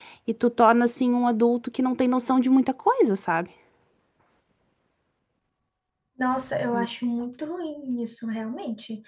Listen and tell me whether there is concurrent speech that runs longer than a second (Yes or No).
No